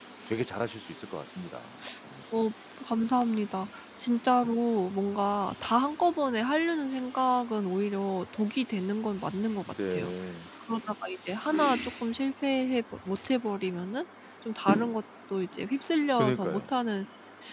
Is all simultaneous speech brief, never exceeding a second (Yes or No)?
Yes